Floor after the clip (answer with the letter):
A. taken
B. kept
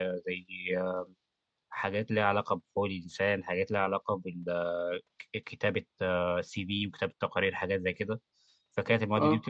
B